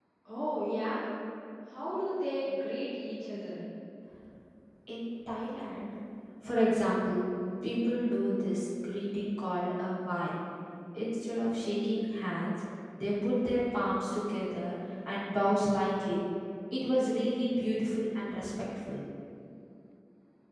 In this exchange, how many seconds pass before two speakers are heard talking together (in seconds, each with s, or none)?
none